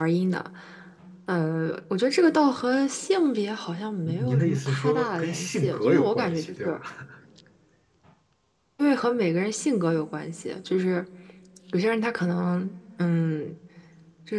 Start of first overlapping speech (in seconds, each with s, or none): 4.1 s